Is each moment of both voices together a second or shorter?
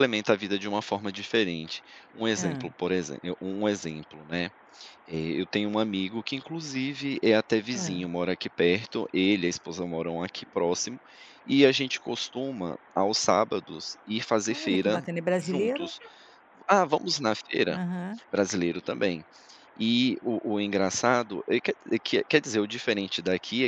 Yes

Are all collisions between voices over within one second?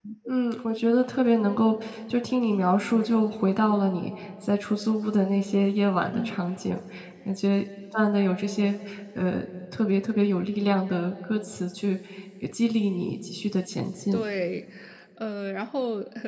Yes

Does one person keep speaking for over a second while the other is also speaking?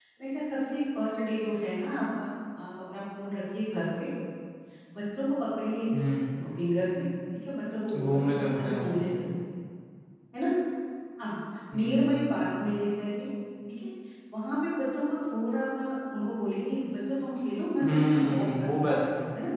Yes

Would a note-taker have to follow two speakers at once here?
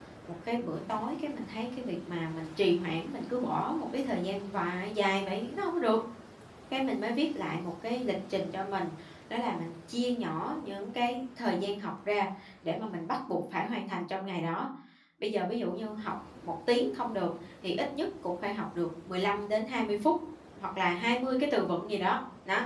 No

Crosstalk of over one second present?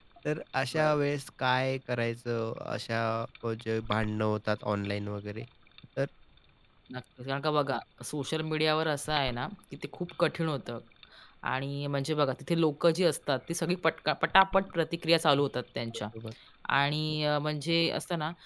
No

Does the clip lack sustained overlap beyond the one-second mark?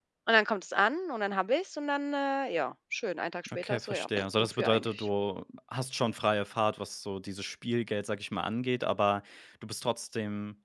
No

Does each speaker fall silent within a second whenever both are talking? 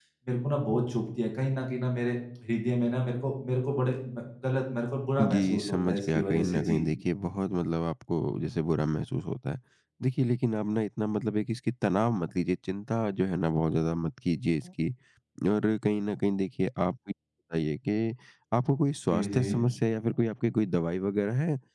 No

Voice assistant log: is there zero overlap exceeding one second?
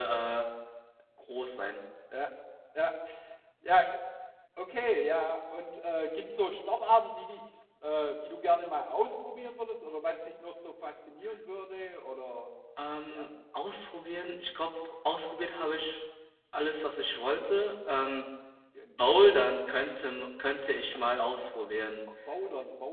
Yes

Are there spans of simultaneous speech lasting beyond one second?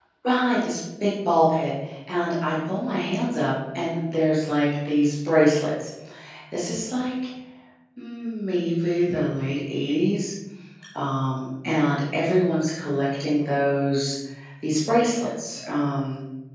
No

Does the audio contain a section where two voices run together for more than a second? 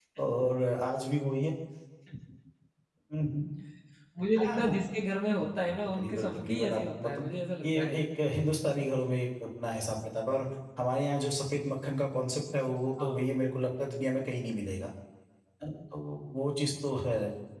Yes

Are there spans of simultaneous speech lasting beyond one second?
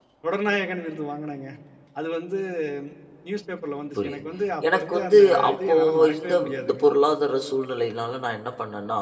Yes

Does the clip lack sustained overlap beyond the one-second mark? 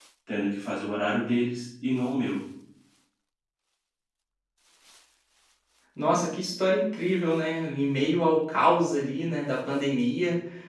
Yes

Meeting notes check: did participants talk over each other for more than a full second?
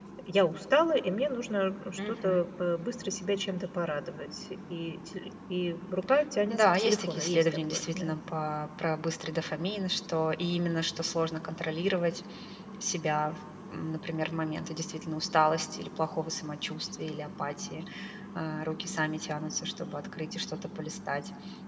Yes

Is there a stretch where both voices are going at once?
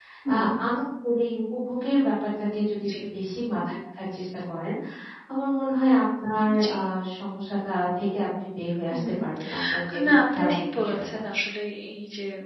Yes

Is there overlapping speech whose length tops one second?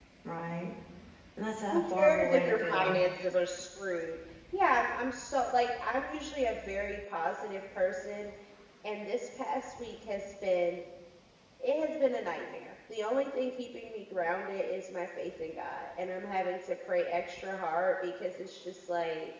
Yes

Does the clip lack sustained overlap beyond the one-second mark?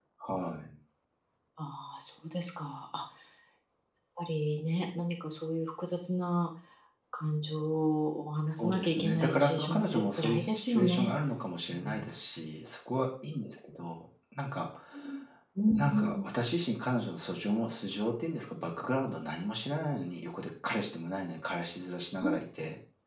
No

